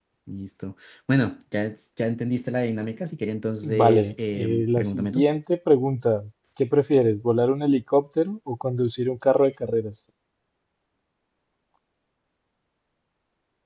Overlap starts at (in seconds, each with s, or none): 3.6 s